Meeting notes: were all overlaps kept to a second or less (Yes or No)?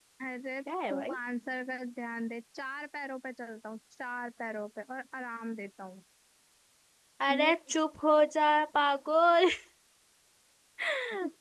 Yes